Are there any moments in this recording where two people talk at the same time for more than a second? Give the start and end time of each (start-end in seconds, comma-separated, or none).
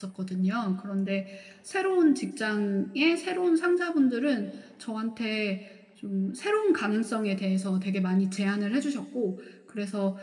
none